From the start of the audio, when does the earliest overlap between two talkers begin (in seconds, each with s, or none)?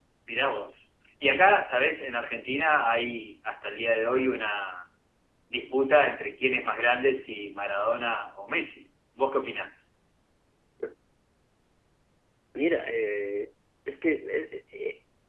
none